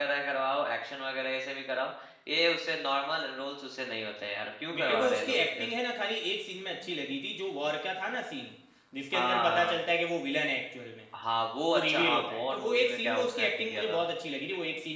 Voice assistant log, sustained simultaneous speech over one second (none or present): present